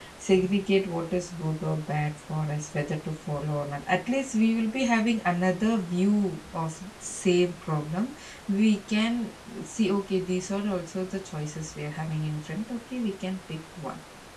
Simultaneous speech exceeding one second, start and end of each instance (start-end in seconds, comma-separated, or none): none